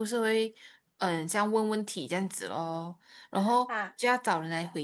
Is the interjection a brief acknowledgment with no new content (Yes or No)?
Yes